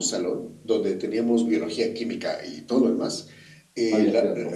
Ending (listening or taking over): listening